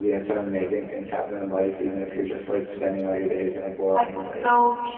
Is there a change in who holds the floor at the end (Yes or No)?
Yes